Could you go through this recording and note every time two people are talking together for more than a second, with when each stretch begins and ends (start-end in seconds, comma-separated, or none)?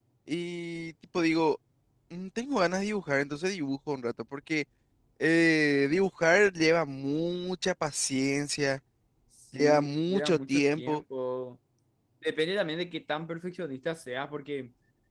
9.5-11.0